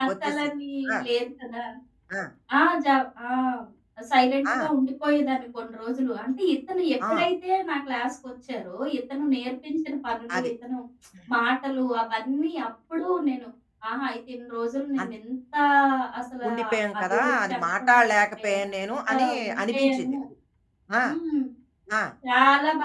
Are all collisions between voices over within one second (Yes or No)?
No